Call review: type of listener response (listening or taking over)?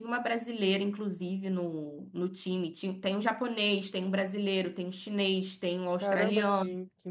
taking over